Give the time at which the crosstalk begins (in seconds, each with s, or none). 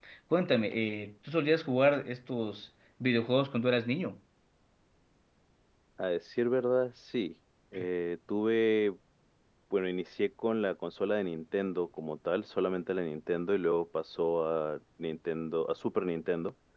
none